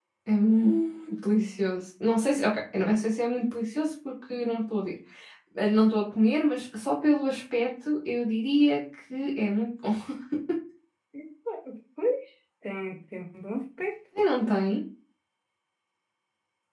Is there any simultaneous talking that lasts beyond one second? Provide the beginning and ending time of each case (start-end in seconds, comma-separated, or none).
none